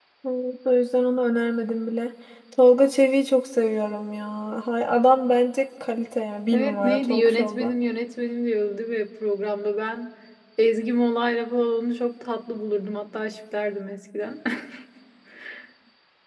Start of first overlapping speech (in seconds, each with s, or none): 6.5 s